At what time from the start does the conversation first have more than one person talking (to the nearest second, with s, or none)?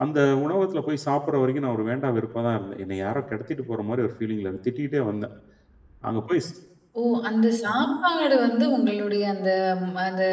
none